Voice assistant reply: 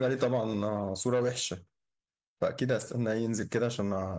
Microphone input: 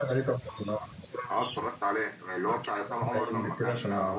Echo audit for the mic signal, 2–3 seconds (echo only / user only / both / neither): both